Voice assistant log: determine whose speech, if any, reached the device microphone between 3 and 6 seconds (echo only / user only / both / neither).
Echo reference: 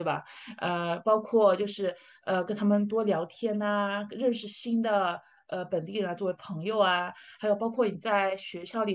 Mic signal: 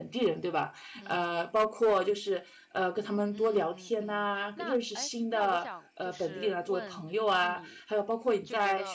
both